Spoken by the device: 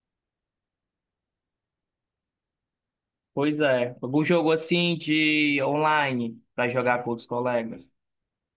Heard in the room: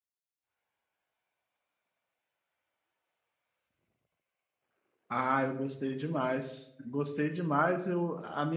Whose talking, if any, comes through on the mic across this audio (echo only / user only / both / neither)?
user only